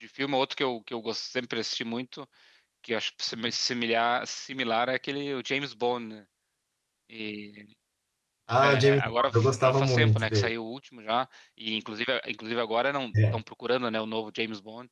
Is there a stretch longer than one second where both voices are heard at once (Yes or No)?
Yes